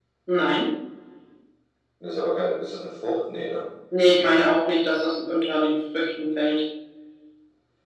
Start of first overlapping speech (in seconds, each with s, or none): none